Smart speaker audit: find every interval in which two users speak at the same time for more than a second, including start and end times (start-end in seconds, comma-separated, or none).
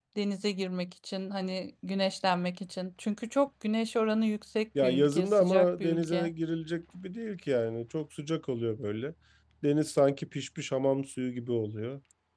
4.8-6.3